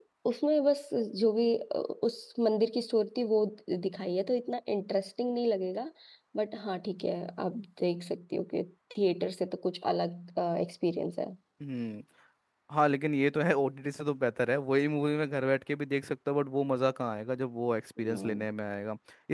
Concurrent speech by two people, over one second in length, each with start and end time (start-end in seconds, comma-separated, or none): none